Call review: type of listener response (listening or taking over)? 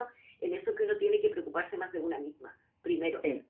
listening